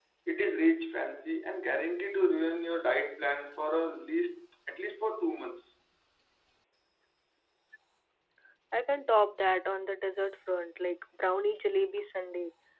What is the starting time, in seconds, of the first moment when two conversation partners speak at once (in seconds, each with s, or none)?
none